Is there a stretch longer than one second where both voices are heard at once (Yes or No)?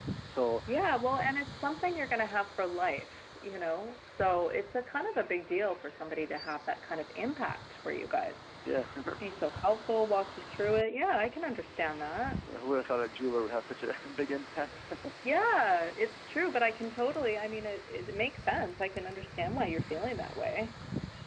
No